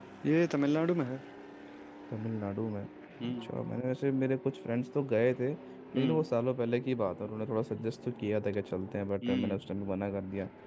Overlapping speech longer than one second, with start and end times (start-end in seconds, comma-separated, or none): none